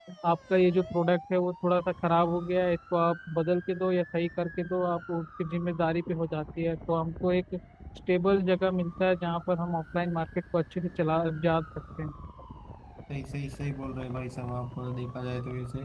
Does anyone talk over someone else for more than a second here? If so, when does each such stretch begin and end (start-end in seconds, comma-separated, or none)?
none